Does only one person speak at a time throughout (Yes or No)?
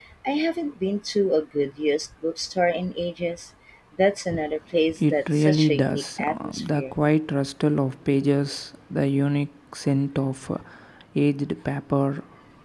No